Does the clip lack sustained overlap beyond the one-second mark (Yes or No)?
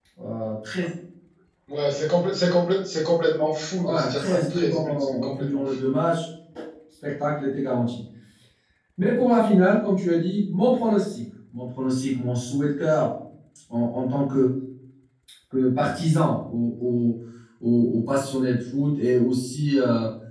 No